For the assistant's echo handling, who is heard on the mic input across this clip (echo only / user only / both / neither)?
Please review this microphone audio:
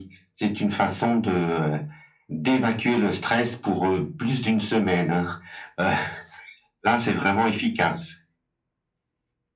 echo only